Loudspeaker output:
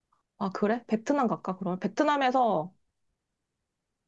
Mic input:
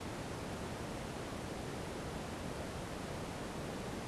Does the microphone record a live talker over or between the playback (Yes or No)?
No